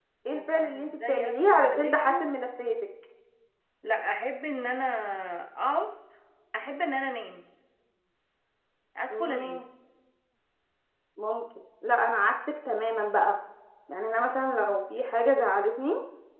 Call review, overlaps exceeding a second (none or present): present